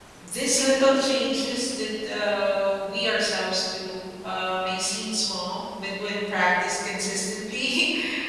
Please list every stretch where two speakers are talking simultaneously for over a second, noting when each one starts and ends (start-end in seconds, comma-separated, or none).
none